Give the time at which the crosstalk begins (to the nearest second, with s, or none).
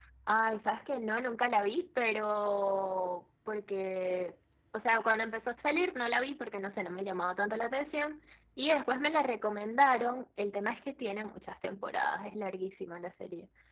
none